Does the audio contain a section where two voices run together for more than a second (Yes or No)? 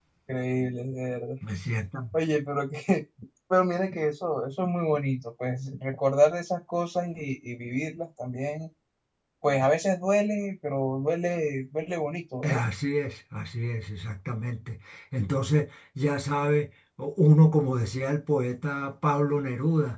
No